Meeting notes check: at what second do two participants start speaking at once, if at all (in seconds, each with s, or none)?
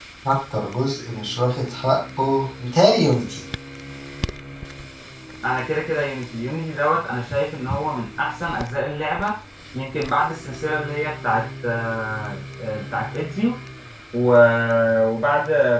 none